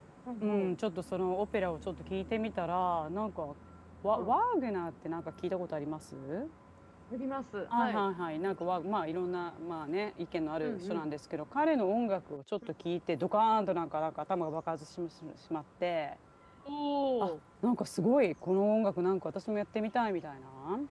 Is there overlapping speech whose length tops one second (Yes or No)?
No